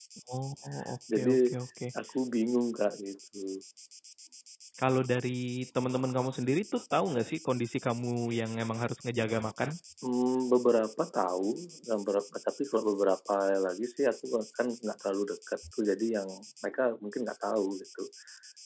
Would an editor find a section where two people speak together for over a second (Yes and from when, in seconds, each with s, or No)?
No